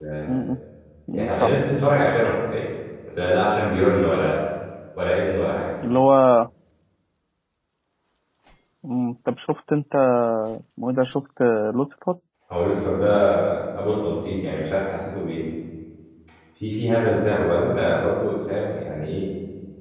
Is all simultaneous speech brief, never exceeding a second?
Yes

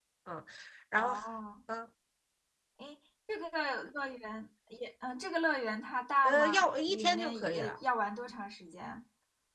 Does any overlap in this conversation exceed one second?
Yes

